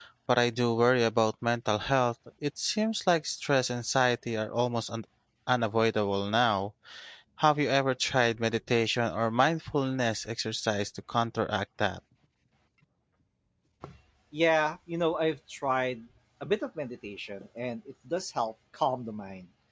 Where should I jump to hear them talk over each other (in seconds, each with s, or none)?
none